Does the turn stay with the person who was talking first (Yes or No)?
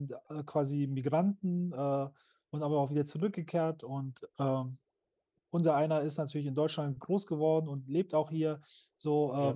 Yes